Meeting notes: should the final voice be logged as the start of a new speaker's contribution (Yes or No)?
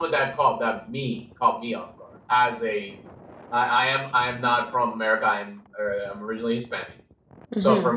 No